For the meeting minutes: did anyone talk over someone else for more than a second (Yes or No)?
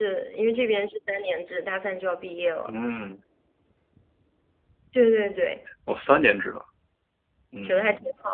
No